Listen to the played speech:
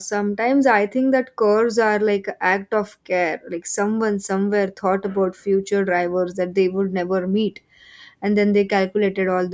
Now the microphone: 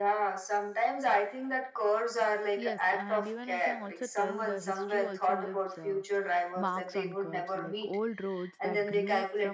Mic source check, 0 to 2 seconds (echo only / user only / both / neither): echo only